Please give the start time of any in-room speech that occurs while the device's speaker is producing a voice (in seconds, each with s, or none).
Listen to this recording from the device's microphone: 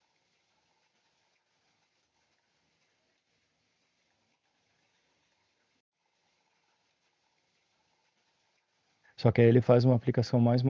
9.2 s